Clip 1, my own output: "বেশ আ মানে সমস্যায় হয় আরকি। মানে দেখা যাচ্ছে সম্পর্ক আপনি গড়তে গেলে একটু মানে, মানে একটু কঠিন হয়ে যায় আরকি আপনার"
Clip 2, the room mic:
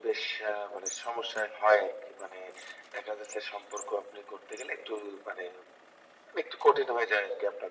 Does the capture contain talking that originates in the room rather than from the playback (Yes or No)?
No